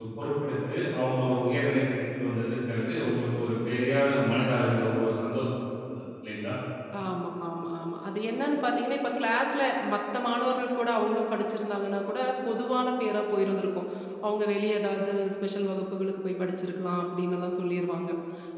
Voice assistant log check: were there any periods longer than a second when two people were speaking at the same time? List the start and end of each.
none

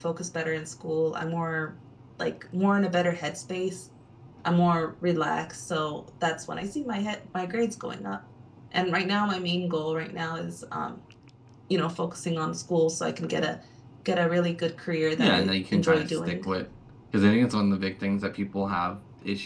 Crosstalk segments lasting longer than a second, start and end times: 15.2-16.4

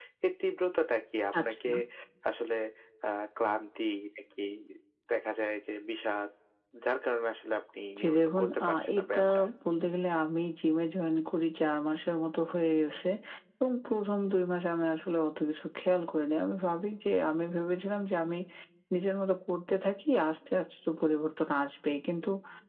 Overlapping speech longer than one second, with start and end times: 8.0-9.2

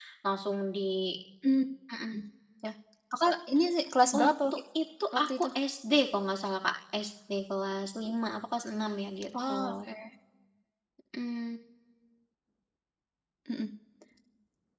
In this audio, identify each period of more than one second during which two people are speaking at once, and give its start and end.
none

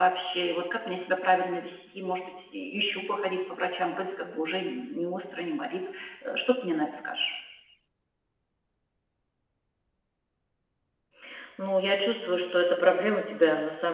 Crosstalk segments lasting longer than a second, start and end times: none

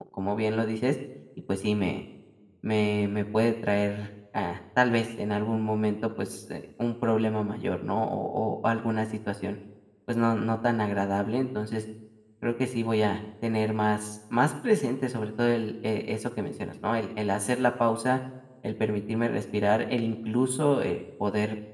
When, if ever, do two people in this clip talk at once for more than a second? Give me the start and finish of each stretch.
none

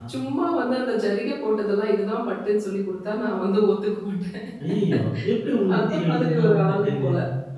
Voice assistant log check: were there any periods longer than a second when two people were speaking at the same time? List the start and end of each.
5.8-7.1

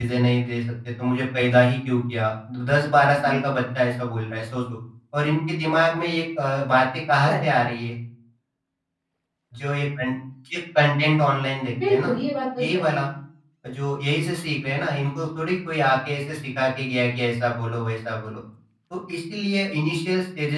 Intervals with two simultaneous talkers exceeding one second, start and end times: none

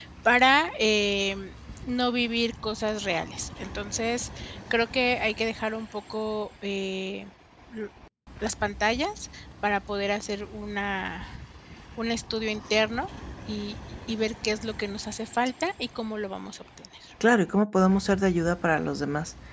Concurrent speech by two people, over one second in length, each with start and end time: none

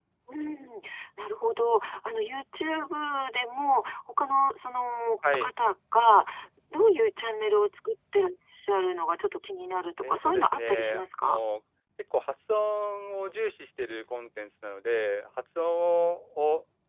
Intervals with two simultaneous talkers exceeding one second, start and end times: 10.0-11.4

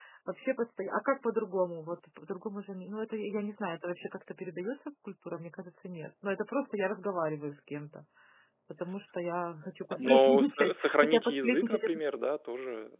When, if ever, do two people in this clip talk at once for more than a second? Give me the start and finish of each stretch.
10.1-11.9

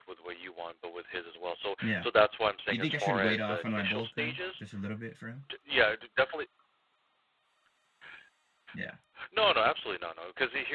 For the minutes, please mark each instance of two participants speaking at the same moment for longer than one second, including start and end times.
2.7-4.6

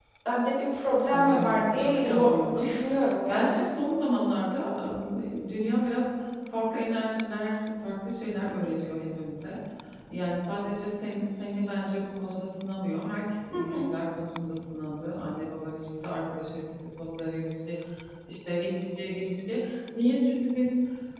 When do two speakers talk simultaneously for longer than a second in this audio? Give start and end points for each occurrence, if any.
1.1-2.7

